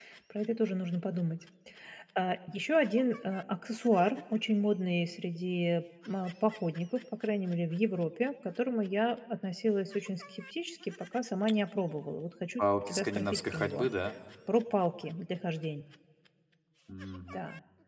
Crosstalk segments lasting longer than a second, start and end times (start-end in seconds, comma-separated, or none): 12.6-13.9